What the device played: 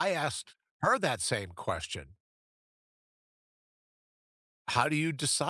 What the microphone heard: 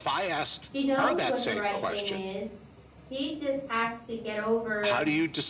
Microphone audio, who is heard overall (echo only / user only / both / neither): both